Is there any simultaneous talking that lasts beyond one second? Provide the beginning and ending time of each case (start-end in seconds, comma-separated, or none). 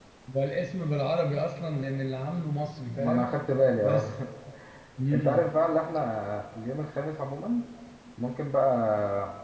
none